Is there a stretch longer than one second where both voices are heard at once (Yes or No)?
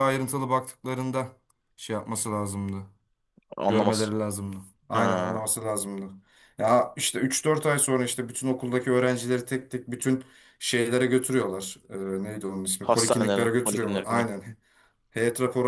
Yes